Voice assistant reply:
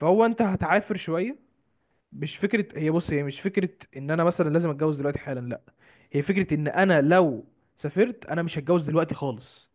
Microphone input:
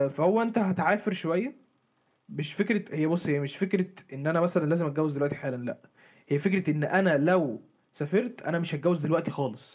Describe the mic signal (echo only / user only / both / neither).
echo only